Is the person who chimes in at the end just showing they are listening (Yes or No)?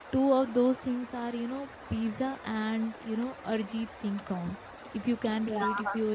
Yes